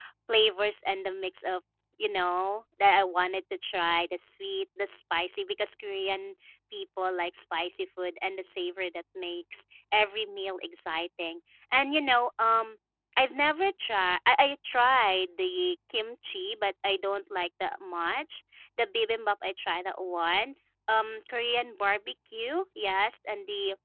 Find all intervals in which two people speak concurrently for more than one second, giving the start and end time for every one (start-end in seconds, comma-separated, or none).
none